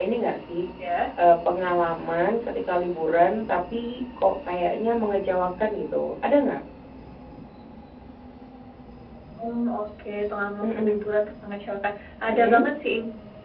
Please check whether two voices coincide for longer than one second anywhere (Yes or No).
No